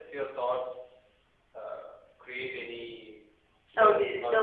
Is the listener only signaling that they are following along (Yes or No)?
No